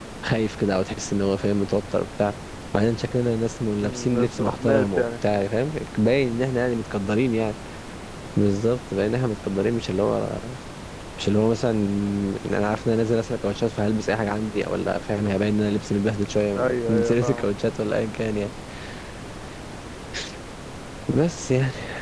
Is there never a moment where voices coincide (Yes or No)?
No